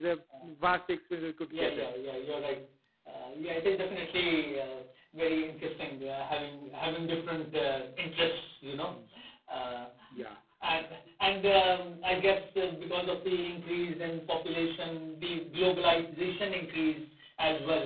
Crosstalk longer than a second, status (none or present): none